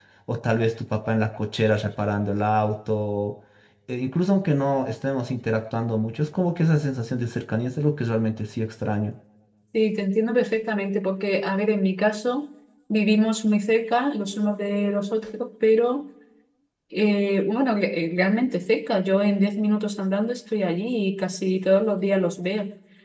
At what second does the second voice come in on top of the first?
none

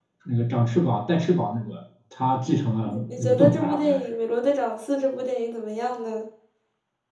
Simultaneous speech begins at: 3 s

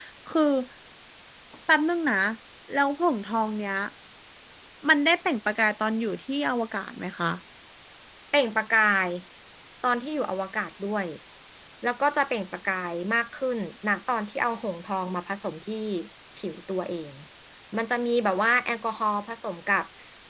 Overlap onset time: none

